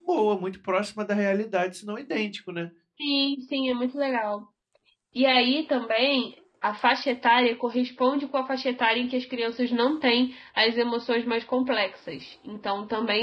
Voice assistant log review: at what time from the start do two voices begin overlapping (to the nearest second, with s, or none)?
none